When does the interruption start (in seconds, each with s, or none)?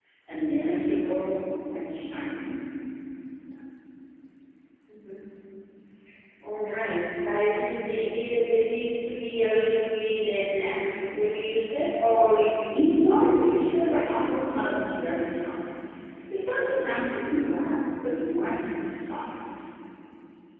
12.7 s